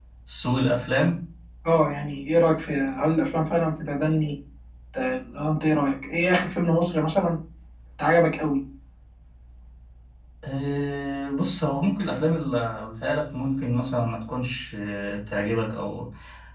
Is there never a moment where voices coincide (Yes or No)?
Yes